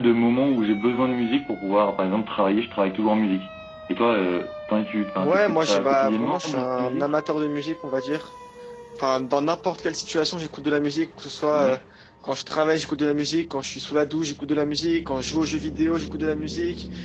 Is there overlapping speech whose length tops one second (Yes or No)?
Yes